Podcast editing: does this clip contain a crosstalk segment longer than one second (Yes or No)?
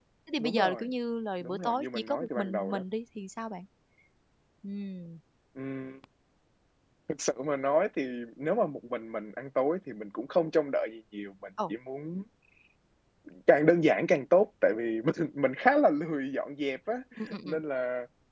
Yes